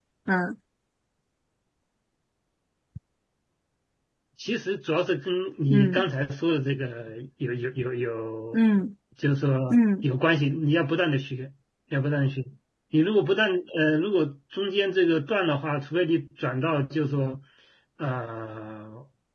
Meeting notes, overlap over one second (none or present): none